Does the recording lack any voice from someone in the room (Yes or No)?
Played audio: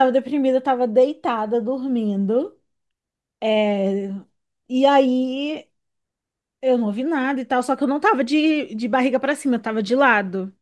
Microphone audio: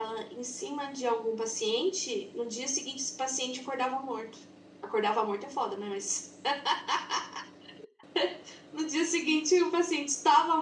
No